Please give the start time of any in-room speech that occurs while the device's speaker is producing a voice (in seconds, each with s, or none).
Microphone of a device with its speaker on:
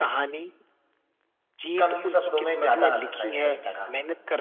1.8 s